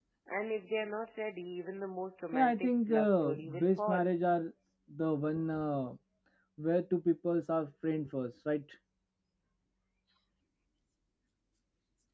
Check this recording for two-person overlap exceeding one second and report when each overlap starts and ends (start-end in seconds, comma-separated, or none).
2.3-4.1